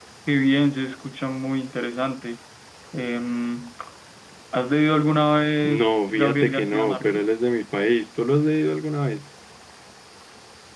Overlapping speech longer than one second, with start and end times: 5.6-7.3

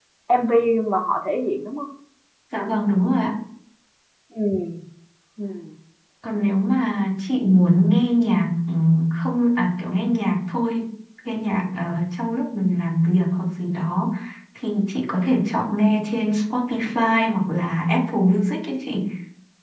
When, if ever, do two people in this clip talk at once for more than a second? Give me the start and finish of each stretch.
none

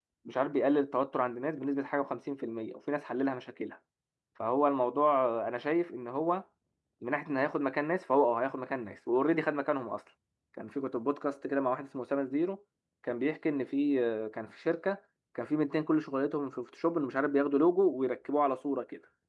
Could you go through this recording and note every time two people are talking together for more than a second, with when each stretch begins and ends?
none

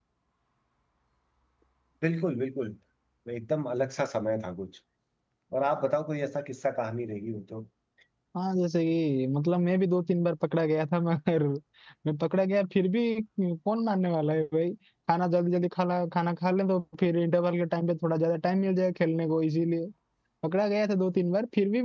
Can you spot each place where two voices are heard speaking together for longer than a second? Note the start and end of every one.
none

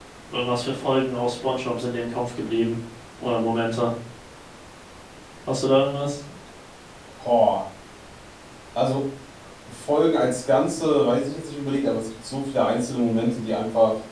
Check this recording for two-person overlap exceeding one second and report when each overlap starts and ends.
none

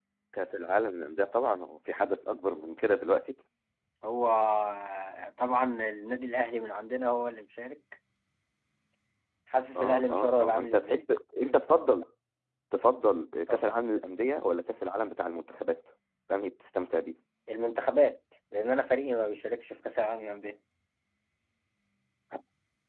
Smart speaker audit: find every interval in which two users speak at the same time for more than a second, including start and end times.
9.8-11.0

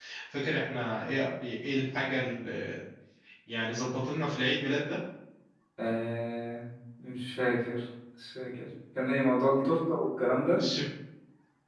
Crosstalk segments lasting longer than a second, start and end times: none

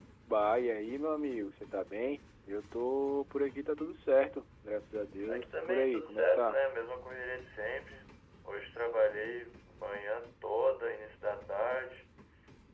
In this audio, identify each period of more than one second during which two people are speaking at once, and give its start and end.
5.3-6.6

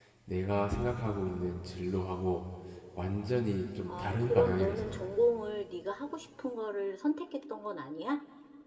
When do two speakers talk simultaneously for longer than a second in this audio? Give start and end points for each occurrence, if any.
3.9-5.1

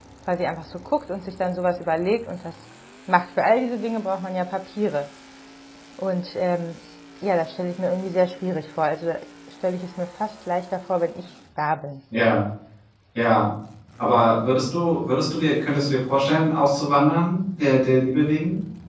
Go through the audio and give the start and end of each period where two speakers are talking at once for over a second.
none

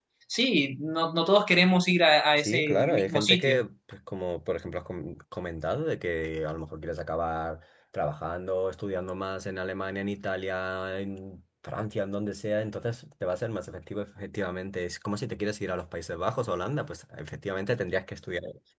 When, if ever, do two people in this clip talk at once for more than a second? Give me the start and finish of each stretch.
2.4-3.6

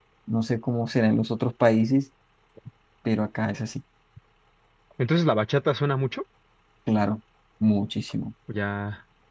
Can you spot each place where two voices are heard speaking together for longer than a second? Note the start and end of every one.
none

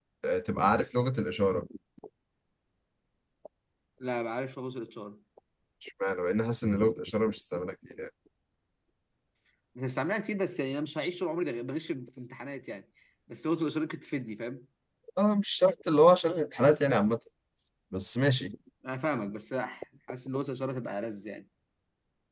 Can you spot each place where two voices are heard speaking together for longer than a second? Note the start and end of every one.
none

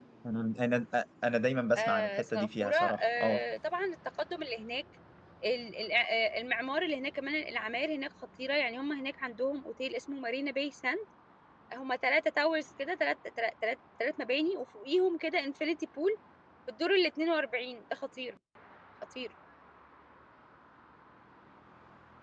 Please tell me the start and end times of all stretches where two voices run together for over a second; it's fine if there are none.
1.8-3.4

